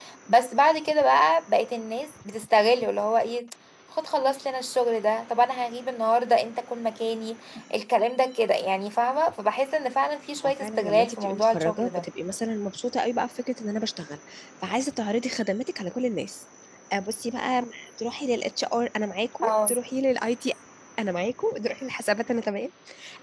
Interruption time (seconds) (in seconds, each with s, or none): 10.4 s